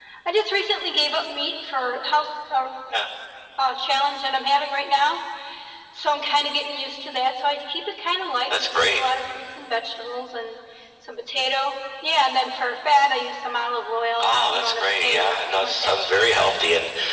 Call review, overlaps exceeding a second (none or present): present